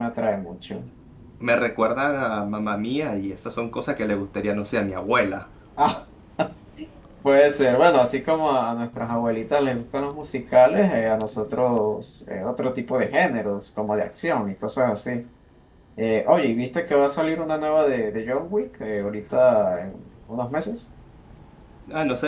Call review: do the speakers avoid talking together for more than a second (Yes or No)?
Yes